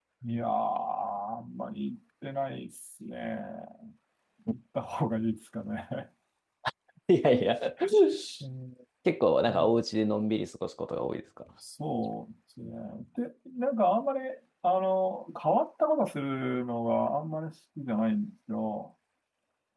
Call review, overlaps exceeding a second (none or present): none